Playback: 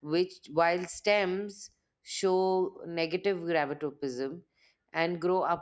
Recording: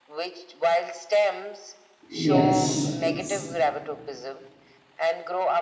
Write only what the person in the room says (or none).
Yes, yes.